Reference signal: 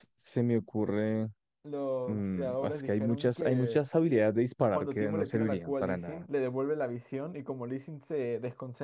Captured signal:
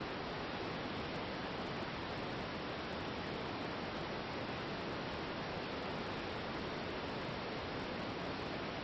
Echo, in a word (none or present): none